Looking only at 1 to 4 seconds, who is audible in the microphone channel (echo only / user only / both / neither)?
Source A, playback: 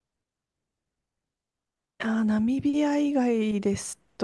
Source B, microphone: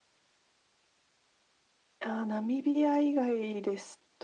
echo only